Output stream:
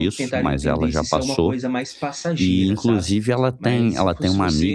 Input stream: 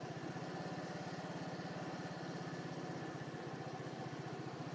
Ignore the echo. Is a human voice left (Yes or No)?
No